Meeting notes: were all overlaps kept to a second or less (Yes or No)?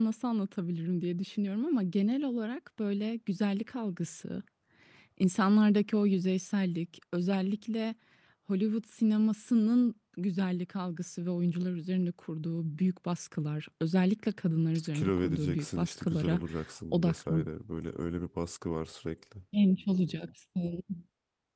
No